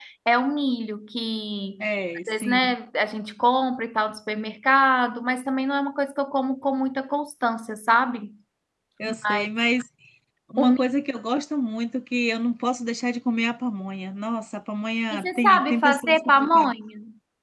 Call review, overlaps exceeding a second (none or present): present